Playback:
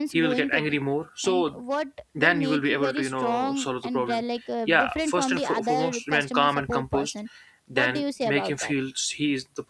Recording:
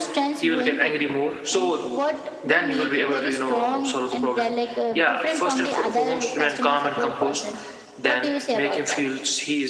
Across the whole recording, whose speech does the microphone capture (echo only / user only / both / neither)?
echo only